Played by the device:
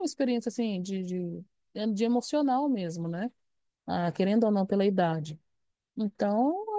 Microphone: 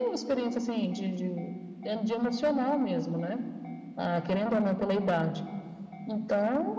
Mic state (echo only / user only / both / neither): echo only